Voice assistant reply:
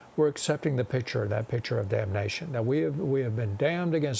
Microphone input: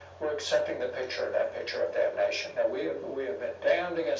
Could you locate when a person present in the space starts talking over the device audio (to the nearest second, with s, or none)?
none